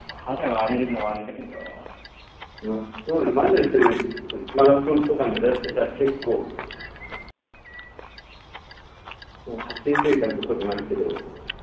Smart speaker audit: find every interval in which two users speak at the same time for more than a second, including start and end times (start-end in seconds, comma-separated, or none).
none